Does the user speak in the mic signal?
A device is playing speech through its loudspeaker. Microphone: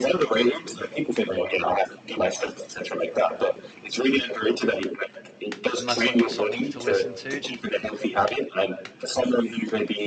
Yes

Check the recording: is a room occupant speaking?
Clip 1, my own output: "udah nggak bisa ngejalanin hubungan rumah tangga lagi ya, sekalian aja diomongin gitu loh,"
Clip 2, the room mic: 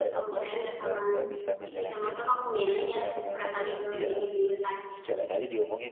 Yes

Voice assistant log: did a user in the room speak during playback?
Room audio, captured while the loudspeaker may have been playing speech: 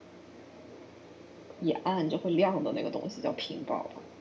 Yes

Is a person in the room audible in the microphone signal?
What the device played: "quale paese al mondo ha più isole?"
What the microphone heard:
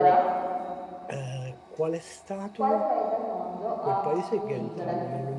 Yes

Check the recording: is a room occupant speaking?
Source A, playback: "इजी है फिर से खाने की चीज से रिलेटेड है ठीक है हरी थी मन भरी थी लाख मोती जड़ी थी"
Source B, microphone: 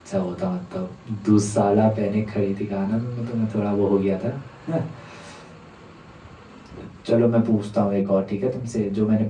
Yes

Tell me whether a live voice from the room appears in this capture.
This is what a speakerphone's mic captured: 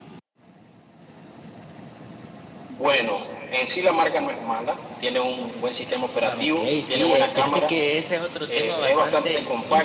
Yes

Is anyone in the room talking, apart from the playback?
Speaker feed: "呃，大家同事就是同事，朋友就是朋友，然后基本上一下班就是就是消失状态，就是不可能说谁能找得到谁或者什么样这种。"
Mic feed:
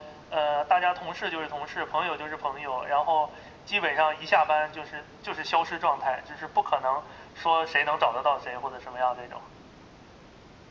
No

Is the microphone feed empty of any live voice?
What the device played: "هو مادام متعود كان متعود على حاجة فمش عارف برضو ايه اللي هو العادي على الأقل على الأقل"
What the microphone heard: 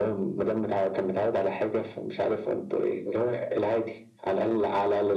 Yes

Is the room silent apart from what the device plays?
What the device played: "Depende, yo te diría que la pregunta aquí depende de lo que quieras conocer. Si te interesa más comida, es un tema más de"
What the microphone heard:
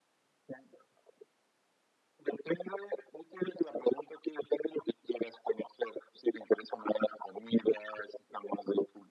Yes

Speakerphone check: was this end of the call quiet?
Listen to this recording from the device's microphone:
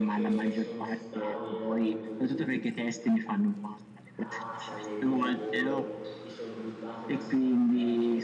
No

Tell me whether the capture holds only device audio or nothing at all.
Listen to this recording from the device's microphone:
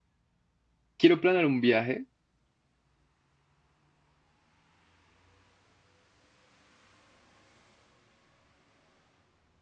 No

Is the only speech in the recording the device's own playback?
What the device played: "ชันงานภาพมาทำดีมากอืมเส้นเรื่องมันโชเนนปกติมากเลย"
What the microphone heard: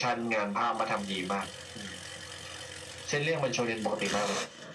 Yes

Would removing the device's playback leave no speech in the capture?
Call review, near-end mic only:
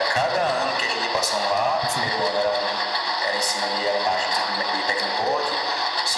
No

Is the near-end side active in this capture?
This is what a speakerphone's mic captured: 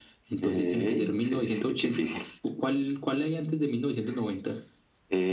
No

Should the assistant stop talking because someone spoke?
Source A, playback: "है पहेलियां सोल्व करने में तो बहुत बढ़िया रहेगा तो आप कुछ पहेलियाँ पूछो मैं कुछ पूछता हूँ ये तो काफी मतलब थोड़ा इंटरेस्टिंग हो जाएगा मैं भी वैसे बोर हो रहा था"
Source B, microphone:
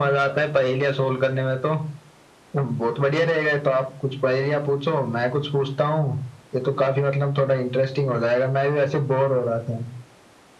No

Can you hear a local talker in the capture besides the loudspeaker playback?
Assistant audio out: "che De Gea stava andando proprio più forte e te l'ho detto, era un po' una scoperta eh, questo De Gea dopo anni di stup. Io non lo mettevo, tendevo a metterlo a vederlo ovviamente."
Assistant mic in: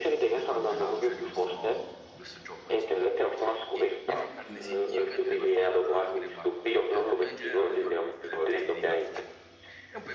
Yes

